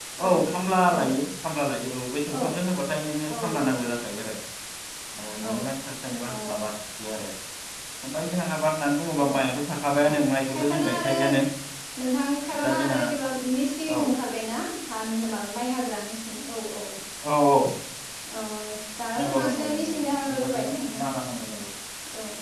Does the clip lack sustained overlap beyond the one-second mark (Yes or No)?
No